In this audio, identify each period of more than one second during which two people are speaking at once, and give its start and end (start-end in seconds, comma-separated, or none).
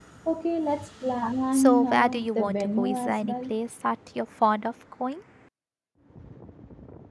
1.5-3.5